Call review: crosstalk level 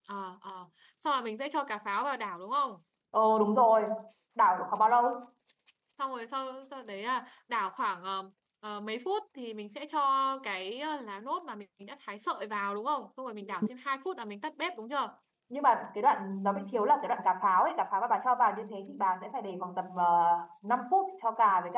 none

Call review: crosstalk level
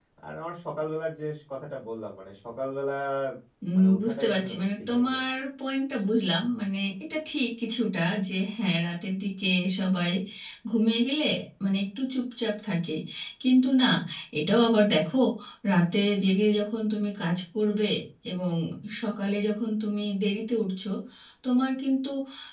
present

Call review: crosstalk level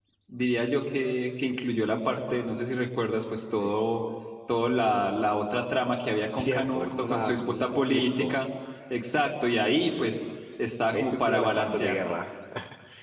present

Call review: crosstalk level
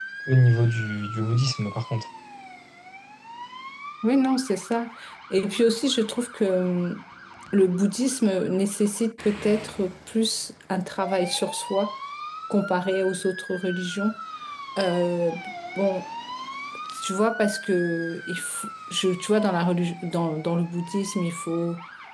none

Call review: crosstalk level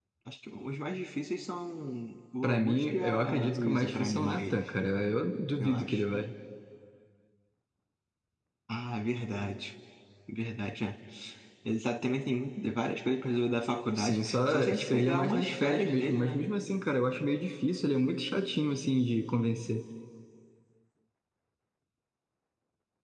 present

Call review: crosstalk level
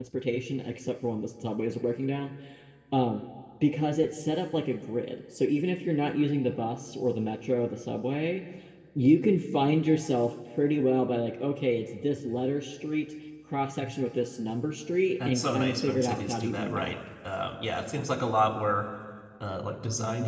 present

